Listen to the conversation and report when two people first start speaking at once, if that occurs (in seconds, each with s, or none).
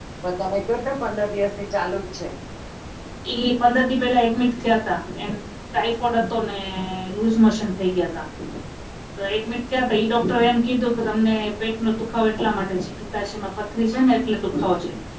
none